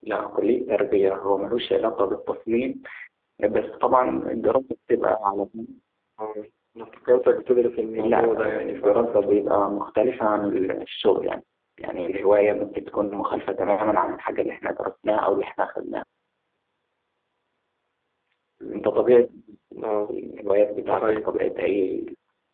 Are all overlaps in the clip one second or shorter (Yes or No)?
No